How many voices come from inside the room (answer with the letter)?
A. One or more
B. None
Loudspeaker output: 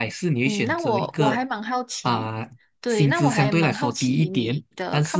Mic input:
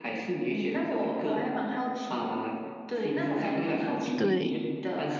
A